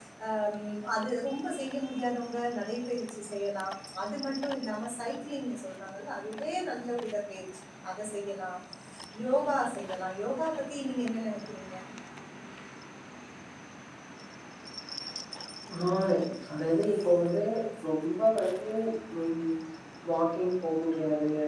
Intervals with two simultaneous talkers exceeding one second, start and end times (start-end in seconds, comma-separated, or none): none